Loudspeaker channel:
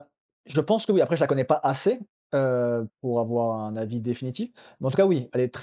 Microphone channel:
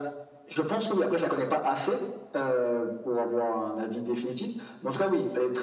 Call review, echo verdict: present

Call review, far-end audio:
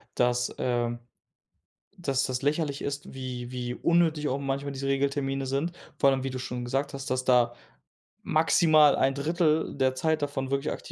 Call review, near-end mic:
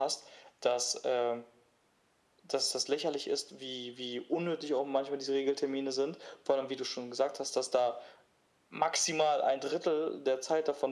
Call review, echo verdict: present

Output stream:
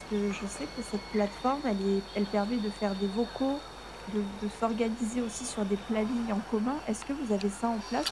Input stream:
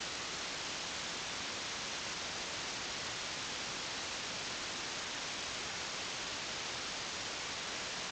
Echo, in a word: none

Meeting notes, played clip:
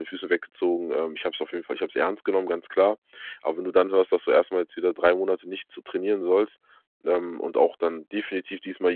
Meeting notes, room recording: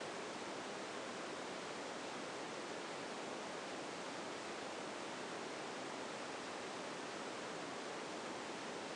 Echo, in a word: none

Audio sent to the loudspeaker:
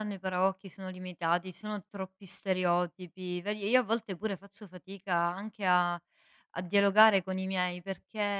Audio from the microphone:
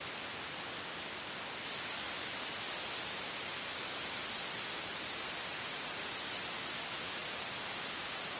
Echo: none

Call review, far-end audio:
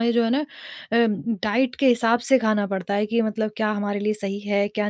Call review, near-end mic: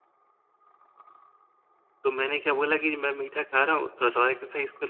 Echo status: none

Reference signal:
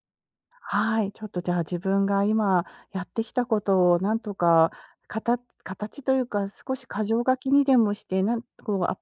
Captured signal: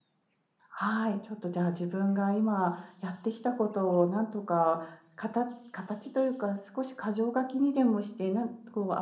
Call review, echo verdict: present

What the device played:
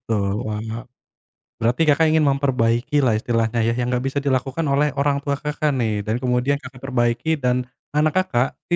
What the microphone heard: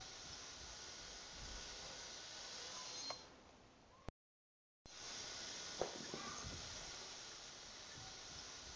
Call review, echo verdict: none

